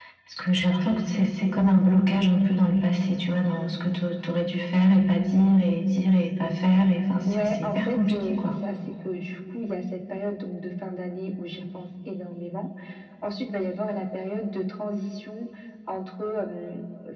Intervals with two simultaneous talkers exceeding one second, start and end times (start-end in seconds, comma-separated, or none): 7.2-8.5